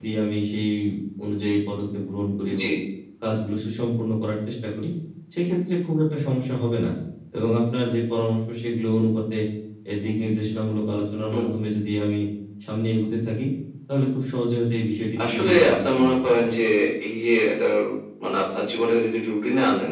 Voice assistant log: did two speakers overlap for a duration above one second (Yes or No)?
Yes